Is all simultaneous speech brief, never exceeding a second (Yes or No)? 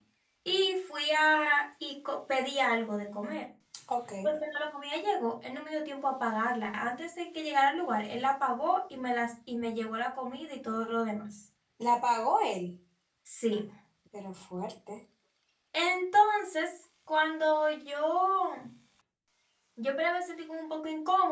Yes